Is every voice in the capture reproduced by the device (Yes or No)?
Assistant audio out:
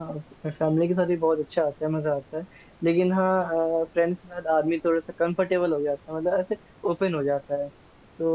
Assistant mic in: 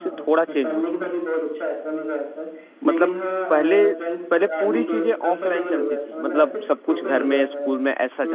No